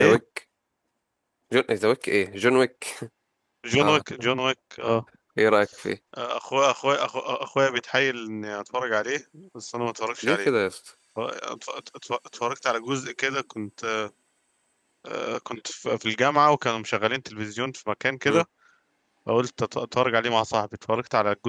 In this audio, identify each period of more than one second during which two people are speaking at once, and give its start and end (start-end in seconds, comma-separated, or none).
none